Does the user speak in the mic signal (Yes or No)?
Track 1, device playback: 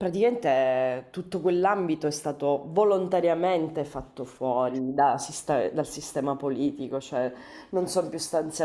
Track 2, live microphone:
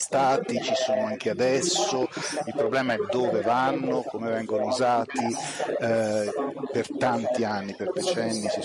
Yes